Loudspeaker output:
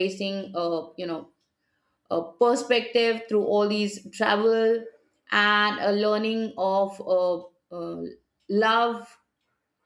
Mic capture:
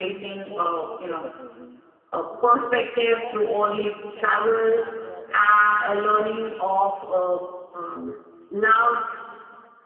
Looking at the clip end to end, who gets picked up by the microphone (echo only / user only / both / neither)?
both